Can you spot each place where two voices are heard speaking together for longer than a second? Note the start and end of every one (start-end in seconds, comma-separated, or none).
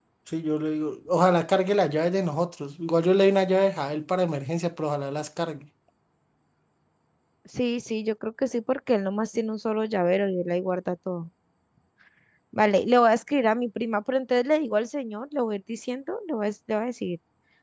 none